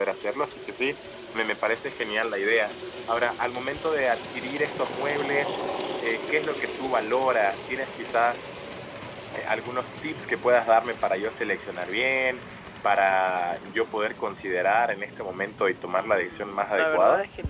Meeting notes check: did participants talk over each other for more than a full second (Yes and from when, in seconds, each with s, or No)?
Yes, from 16.0 s